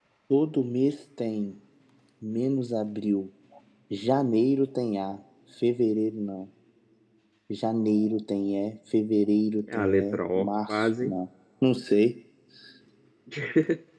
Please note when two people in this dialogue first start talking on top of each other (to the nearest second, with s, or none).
10 s